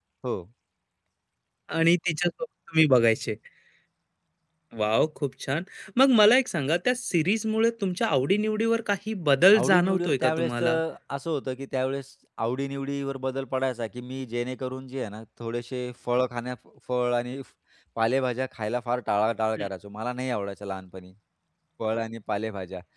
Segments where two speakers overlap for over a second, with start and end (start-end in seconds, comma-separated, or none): 9.6-10.8